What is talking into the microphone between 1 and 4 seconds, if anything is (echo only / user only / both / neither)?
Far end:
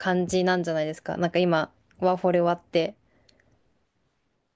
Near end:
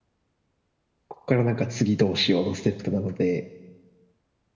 user only